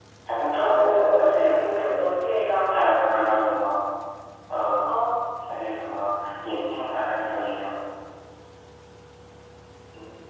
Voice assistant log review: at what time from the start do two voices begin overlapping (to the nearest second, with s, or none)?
1 s